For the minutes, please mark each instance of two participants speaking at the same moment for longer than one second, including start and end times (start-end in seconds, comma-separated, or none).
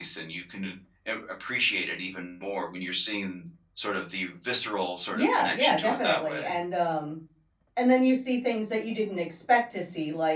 5.1-6.5